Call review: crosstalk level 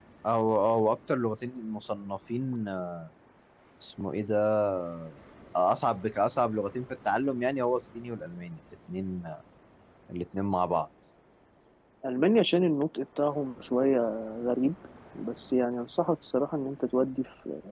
none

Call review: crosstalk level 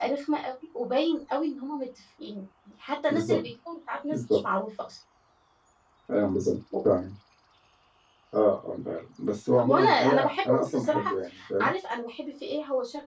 present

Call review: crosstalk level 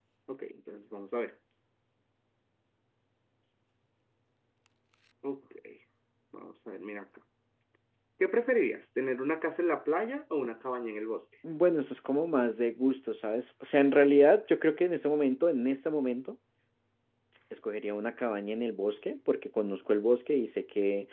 none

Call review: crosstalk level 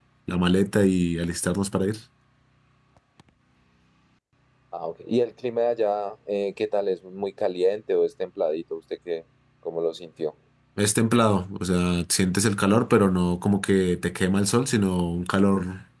none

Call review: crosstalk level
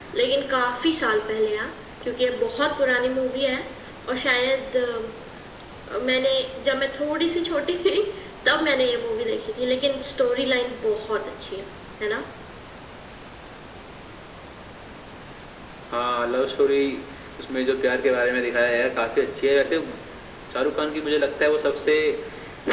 none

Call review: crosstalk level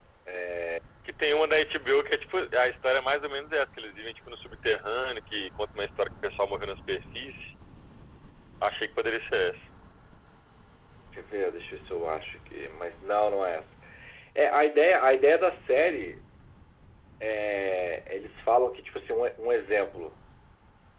none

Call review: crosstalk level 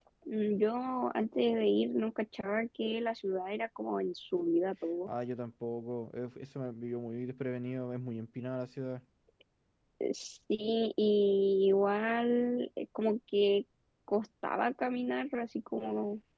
none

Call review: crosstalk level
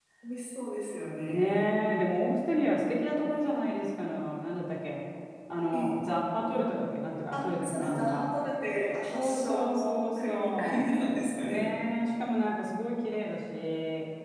present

